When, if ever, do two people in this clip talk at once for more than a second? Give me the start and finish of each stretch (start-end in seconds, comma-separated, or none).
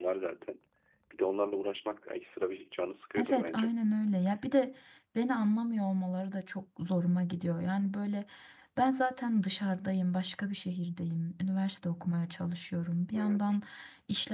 none